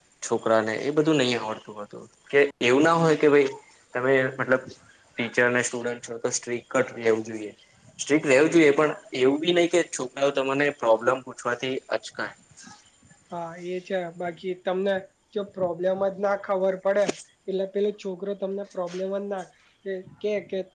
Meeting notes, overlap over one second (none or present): none